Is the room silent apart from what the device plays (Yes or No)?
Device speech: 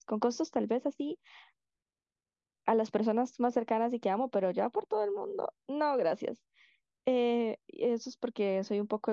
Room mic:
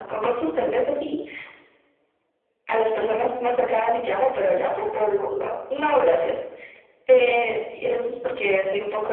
Yes